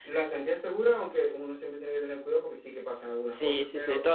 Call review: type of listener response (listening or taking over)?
taking over